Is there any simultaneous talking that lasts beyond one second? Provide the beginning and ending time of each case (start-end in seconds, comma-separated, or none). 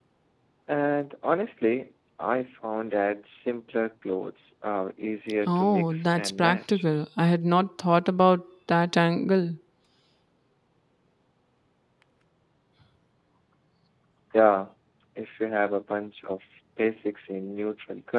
5.5-6.8